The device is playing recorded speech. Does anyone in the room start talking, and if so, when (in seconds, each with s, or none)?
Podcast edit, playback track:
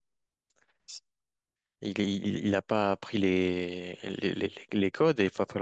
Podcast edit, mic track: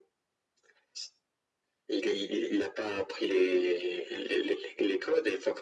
none